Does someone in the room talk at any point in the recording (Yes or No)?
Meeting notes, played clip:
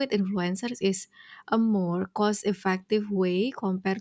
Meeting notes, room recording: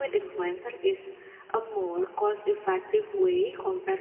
No